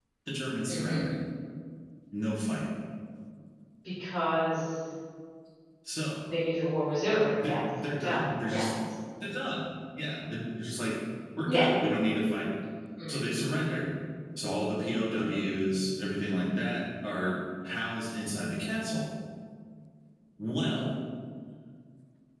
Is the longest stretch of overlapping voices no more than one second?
No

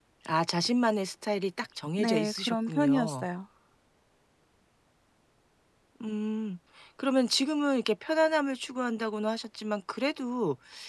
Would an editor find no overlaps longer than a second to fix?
No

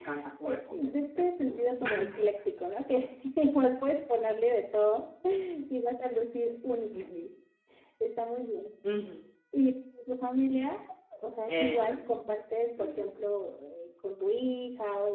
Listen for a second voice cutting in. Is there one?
Yes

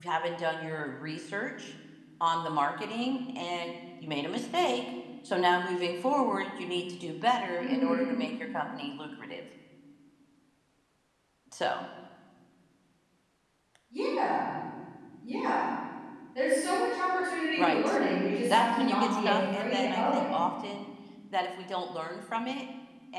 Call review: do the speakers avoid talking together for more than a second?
No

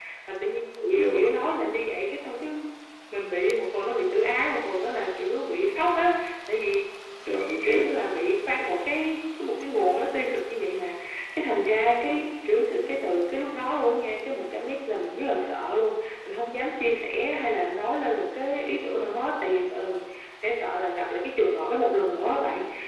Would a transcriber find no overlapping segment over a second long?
Yes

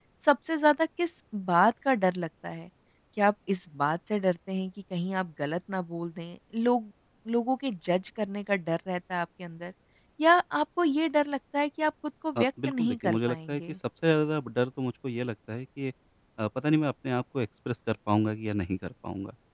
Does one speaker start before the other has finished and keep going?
Yes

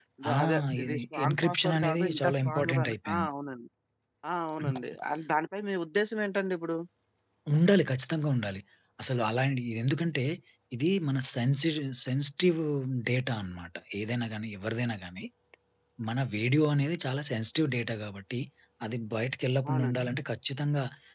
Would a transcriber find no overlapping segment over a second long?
No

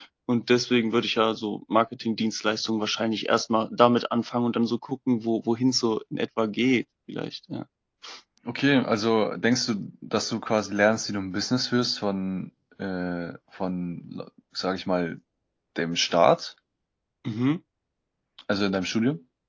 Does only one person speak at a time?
Yes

